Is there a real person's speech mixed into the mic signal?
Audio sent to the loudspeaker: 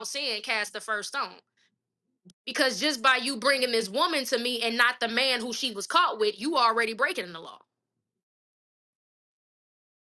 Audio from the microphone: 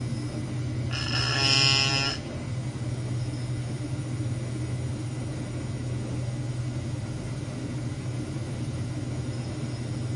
No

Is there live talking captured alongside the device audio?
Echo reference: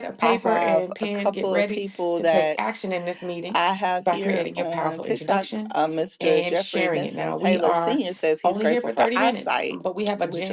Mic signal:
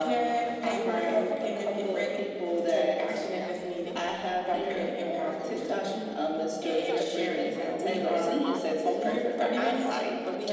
Yes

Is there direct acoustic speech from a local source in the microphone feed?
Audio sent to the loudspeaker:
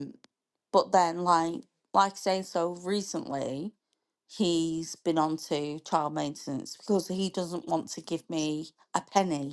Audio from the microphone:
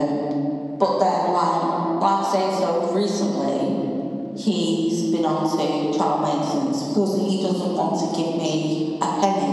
No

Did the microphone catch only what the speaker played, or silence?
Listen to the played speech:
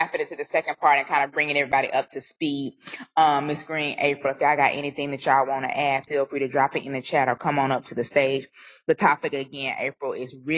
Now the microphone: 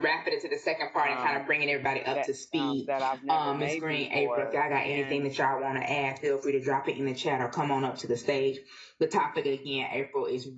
No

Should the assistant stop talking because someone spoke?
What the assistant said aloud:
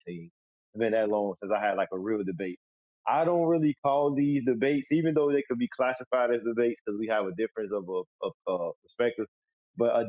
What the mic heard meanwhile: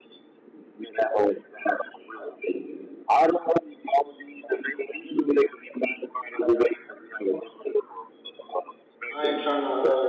Yes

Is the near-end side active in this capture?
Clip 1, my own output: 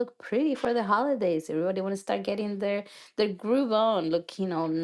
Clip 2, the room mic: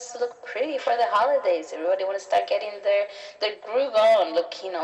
No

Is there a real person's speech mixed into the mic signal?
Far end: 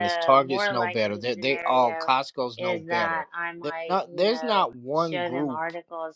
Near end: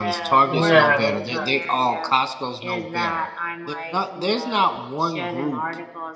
Yes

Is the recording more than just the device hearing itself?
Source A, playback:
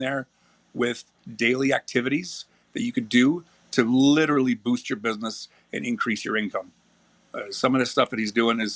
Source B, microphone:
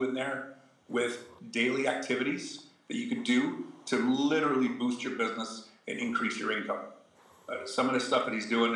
No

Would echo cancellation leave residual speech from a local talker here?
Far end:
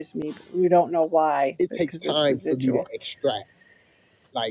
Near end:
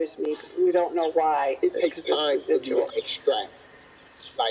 No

